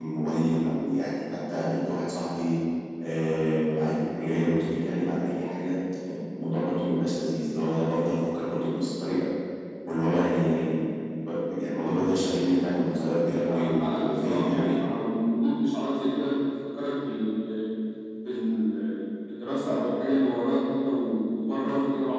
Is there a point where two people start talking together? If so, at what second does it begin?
13.5 s

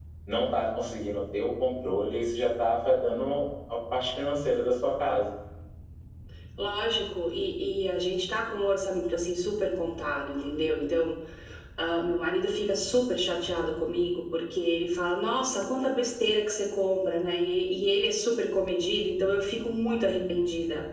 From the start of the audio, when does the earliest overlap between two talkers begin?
none

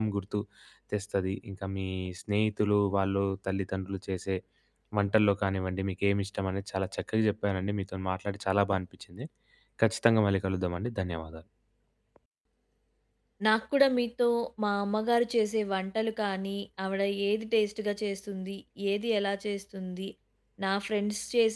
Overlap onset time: none

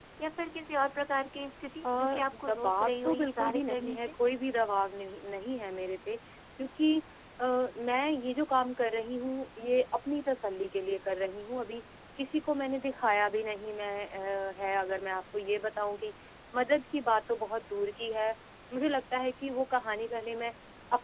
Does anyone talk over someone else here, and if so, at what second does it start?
1.8 s

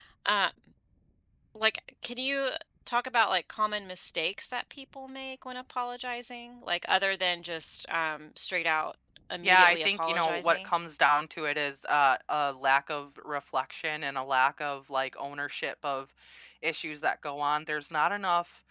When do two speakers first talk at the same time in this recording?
9.4 s

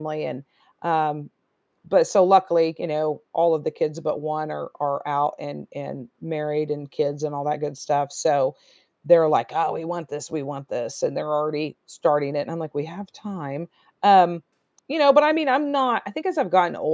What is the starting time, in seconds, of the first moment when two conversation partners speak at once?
none

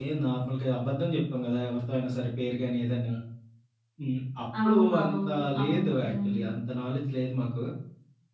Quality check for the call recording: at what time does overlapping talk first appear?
4.6 s

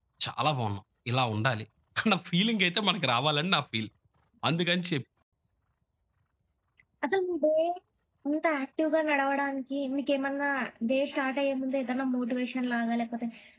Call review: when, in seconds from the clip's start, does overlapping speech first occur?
none

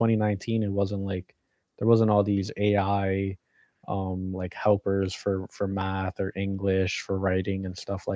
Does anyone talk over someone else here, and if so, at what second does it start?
none

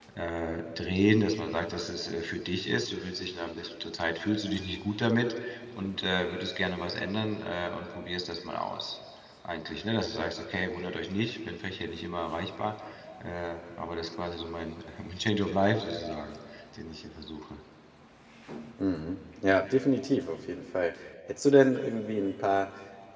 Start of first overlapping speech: none

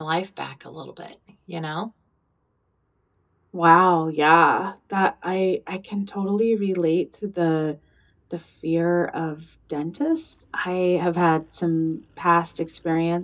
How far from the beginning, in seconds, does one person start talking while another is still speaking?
none

